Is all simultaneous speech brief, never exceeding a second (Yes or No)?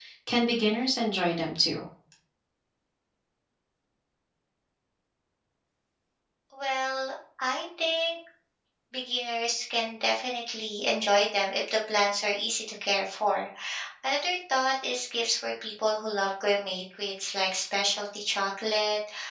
Yes